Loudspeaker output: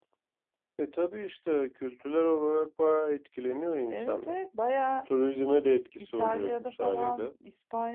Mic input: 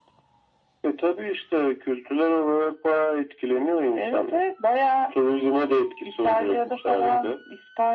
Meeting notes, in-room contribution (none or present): none